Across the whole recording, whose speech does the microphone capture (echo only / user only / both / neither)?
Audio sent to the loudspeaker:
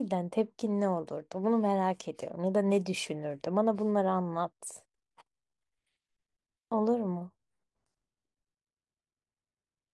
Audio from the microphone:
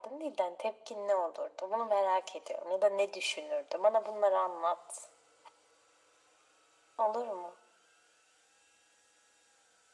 echo only